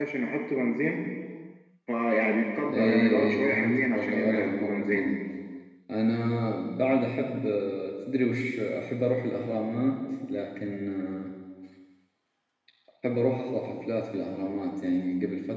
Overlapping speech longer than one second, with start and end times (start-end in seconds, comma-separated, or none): 2.7-5.1